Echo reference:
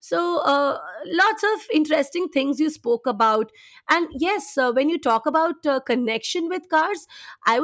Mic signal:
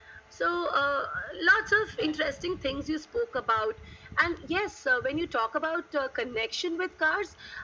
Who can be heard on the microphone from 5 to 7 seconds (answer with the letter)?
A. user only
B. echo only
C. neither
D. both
B